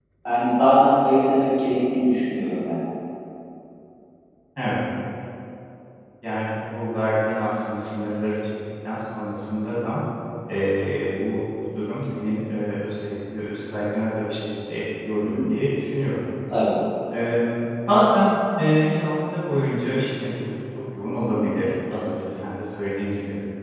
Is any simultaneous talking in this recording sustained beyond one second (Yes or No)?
No